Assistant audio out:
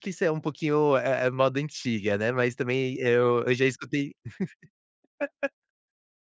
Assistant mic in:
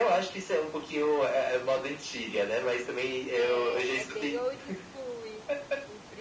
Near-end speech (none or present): present